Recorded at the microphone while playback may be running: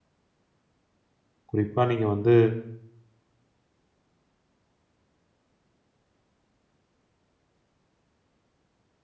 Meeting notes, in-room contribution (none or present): present